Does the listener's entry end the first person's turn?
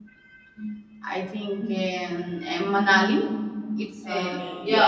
Yes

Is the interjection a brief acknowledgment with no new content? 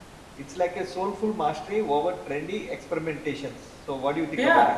No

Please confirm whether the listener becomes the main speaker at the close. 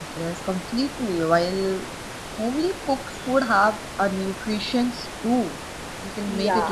No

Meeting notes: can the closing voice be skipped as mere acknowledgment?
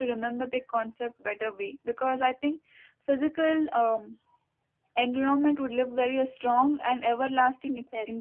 No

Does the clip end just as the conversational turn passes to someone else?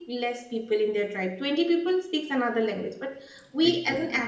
No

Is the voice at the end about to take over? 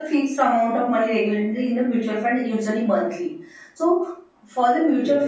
No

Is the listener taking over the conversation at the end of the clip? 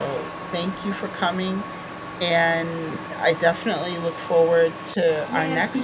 Yes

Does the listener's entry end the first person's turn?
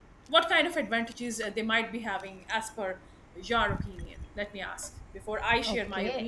Yes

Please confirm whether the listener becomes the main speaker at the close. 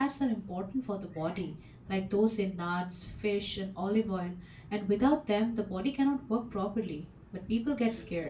No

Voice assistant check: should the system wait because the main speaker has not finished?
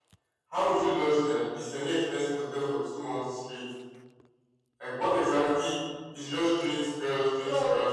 No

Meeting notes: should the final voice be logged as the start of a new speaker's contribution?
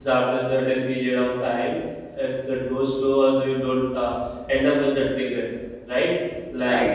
Yes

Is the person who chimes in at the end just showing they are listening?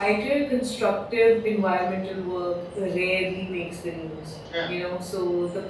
Yes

